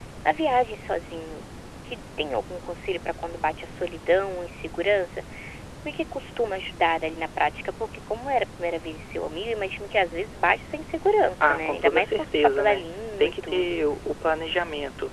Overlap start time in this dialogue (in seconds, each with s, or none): 11.4 s